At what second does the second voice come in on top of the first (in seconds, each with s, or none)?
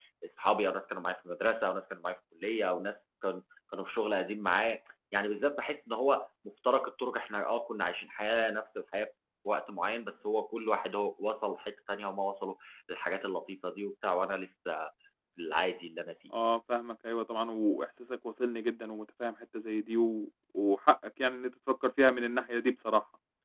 none